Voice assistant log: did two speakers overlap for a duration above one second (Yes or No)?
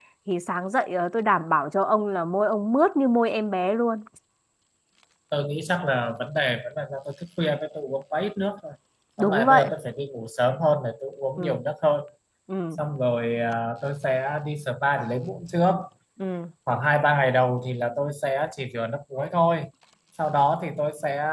No